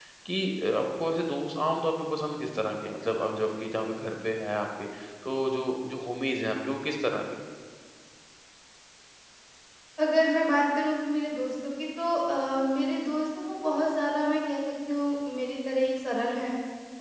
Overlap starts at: none

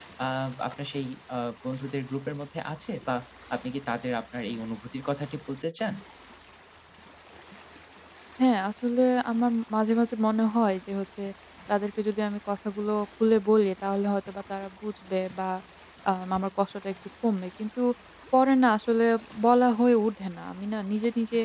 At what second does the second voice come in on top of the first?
none

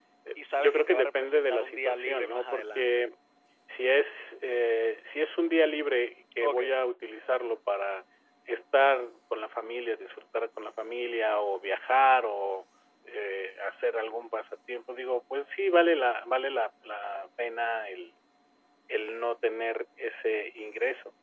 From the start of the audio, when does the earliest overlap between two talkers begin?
0.5 s

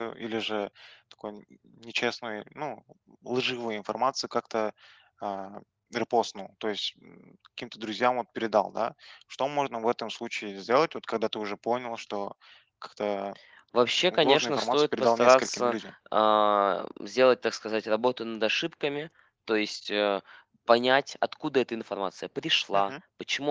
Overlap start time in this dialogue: 14.1 s

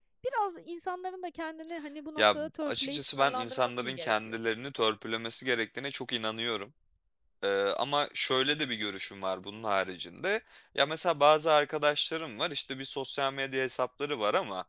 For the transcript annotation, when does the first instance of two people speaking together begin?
2.2 s

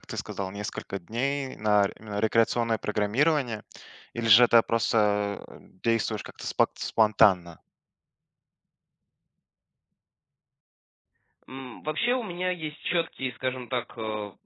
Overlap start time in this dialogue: none

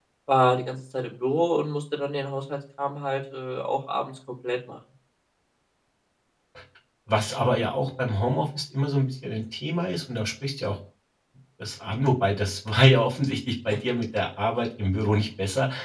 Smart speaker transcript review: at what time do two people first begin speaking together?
none

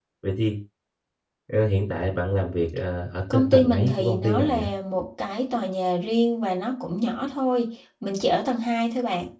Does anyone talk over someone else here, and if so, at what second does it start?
3.3 s

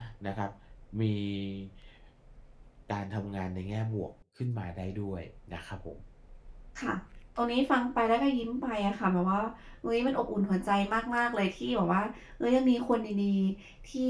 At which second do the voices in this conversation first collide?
none

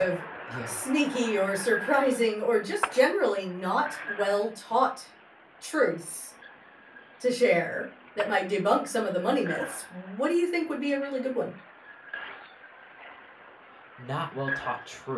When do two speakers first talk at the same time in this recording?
none

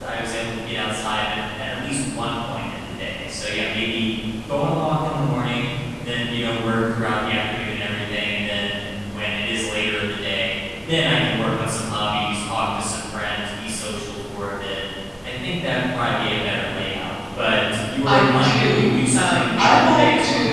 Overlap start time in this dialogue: 18.0 s

